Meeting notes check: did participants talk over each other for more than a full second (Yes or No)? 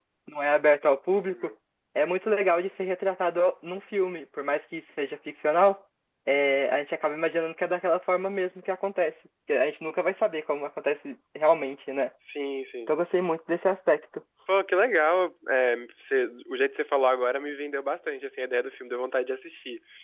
No